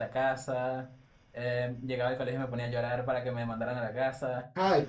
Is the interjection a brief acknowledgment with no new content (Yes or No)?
No